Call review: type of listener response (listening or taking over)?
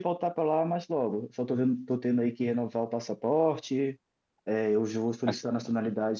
listening